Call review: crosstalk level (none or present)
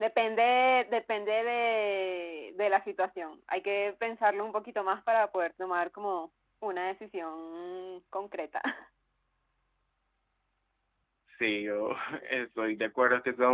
none